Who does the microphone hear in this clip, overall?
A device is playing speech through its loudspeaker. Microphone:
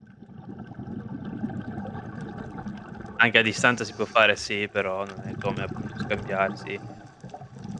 user only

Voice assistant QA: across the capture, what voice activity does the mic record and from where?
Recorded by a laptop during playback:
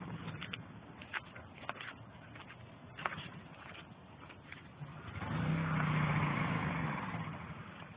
neither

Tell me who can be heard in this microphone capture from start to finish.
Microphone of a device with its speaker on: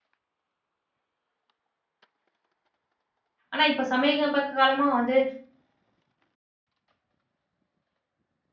user only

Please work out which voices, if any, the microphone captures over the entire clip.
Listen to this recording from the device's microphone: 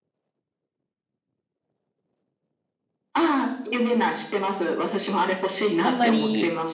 both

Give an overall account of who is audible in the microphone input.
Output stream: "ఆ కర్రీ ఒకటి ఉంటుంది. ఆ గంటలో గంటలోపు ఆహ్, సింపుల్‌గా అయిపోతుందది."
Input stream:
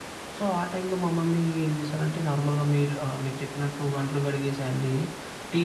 user only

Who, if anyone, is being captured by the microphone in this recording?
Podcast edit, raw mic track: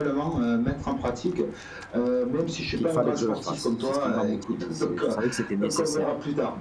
both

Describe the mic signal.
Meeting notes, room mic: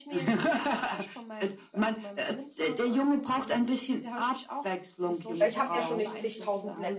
both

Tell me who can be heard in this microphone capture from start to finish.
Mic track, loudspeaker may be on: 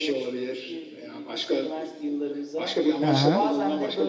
both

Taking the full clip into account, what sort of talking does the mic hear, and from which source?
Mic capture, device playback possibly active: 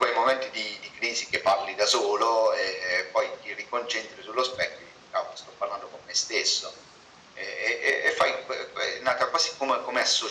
echo only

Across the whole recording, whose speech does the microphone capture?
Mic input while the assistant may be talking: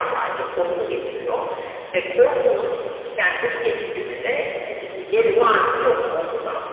echo only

